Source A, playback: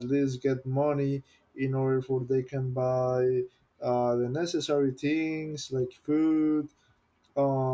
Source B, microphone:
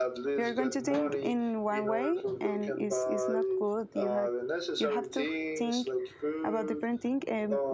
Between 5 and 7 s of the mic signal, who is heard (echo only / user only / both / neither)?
both